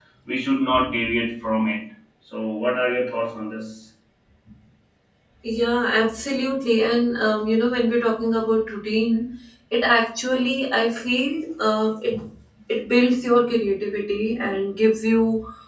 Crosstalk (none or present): none